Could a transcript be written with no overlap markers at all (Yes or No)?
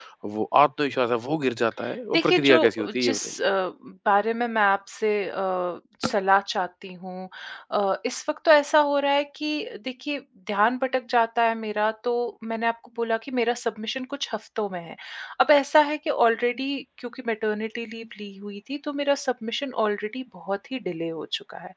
No